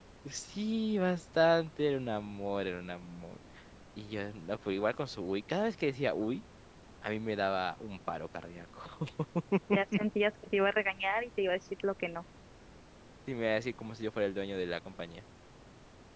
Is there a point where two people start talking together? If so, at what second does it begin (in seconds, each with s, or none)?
none